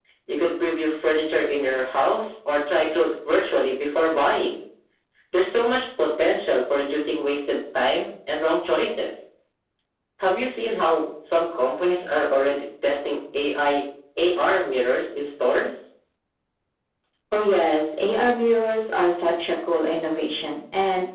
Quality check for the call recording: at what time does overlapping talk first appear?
none

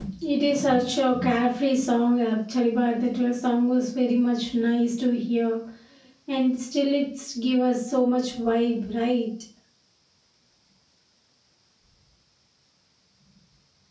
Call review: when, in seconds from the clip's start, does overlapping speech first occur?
none

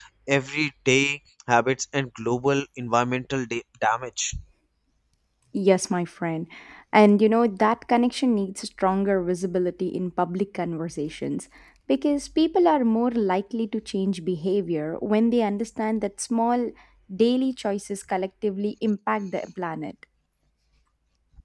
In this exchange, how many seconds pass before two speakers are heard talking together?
none

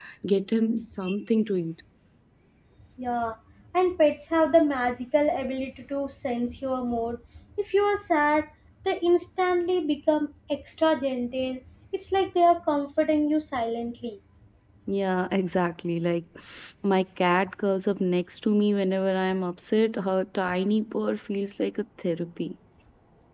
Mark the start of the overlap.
none

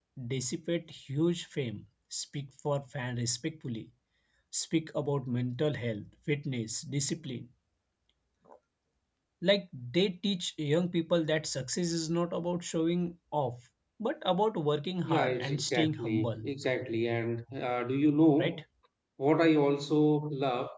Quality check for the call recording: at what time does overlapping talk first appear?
15.0 s

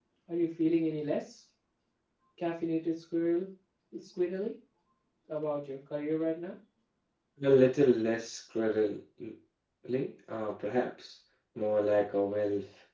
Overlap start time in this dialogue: none

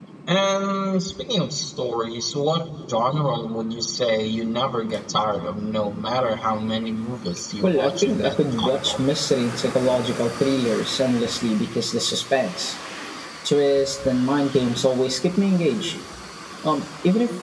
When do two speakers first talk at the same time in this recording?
7.6 s

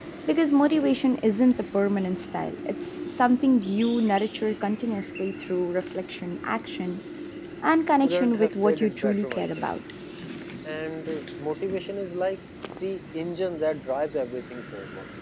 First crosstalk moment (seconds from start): 8.0 s

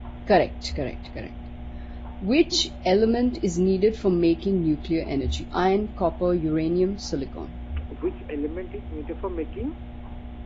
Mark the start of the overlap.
none

